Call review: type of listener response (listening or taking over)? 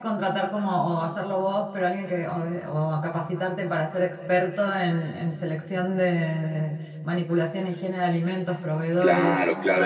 taking over